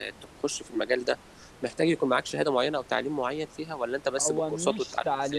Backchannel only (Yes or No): No